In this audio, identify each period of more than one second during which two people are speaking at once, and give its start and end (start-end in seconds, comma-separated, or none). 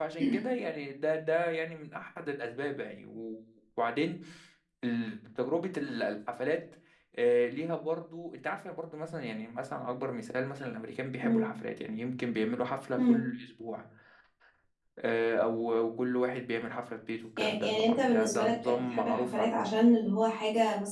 17.4-19.7